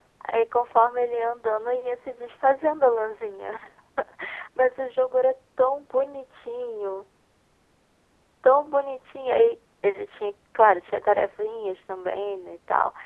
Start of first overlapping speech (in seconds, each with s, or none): none